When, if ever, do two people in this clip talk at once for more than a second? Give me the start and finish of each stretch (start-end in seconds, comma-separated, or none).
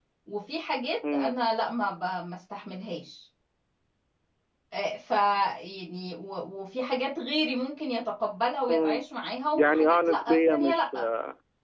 9.5-10.9